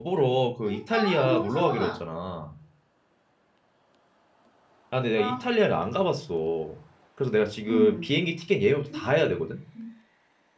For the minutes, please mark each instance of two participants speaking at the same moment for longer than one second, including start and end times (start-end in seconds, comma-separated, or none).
0.7-2.1